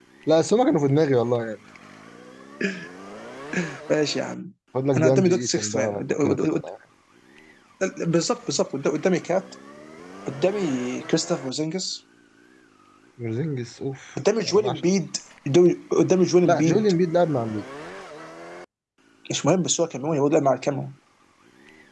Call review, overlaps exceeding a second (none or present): present